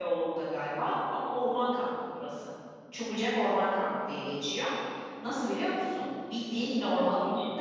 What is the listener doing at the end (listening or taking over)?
listening